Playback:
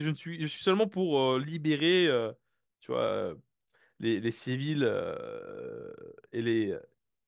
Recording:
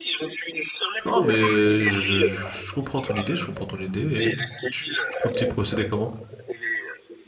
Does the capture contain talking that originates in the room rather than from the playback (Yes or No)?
Yes